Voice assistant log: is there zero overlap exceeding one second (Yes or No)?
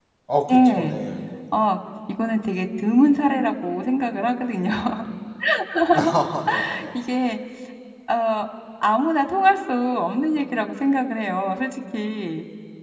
Yes